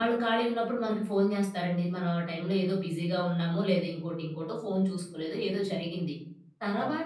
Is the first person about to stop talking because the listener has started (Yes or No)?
No